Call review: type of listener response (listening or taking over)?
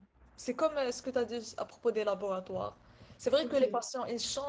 listening